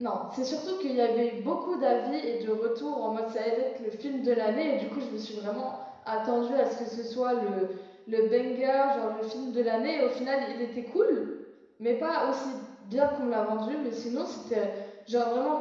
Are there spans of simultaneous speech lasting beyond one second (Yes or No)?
No